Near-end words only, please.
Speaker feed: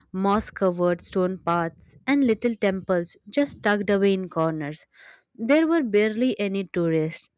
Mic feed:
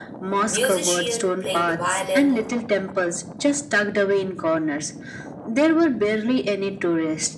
musician playing the violin

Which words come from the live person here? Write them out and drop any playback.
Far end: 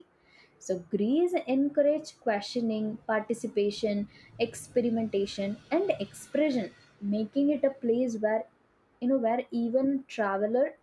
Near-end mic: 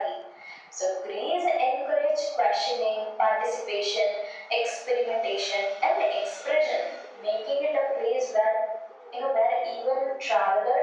none

